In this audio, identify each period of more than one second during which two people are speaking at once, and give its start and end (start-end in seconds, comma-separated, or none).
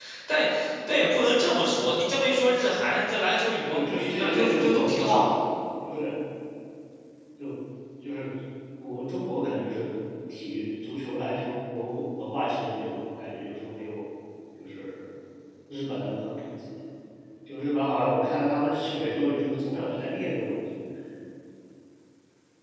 3.7-5.3